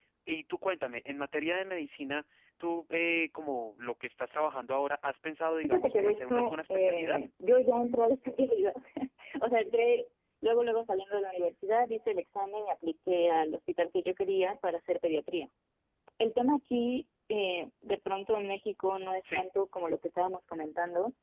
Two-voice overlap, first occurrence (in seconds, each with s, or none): 5.6 s